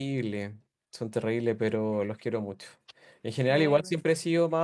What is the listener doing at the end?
listening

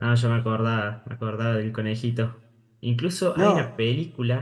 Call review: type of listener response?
listening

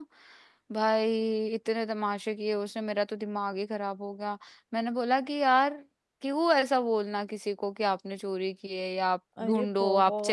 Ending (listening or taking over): taking over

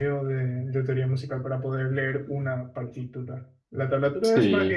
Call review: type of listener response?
listening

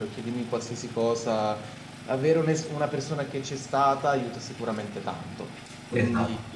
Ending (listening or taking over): listening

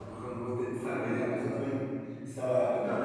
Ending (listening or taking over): listening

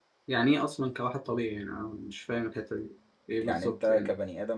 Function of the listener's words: taking over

